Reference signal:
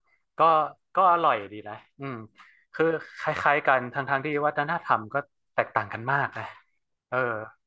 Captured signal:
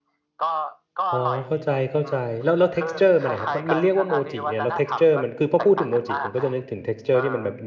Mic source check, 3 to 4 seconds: both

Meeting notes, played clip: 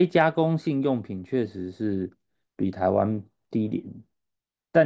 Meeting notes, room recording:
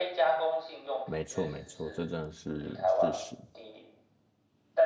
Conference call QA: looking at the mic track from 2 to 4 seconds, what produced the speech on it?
both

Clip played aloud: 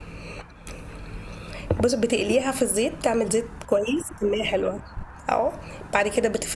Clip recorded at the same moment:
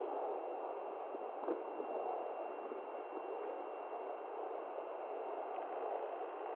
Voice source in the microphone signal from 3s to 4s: neither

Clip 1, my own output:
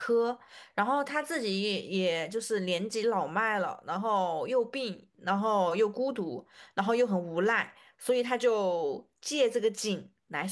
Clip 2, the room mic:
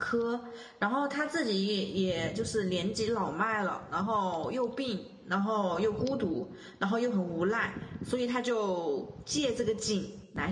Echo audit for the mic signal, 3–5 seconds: echo only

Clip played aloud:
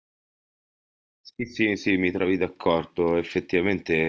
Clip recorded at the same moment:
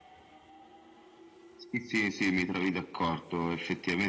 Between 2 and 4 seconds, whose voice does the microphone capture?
echo only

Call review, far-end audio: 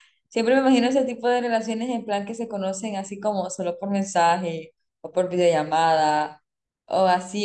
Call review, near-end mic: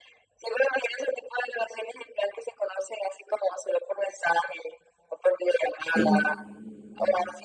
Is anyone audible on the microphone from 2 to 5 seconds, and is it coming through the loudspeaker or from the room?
echo only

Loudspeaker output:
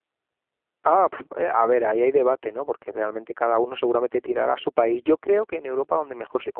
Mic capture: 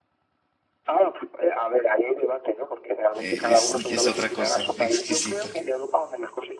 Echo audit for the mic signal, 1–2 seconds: echo only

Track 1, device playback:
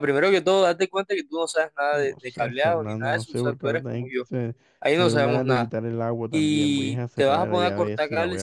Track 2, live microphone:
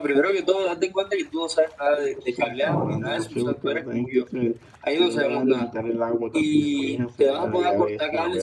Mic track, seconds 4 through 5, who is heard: echo only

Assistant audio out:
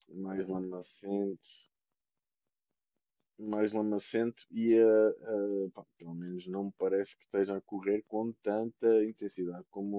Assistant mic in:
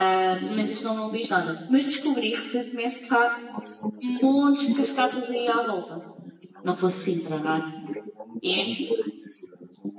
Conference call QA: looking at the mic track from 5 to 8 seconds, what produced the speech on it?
both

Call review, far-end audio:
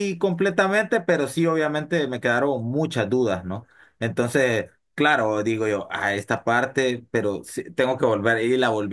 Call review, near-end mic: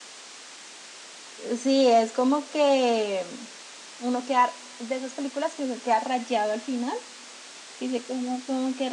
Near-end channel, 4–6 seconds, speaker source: user only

